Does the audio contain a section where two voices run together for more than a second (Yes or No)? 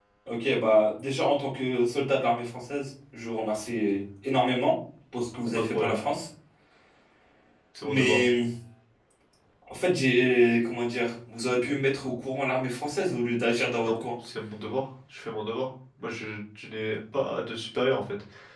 No